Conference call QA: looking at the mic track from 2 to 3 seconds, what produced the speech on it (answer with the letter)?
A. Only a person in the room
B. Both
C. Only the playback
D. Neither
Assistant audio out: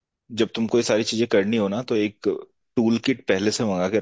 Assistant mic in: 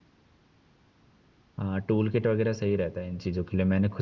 A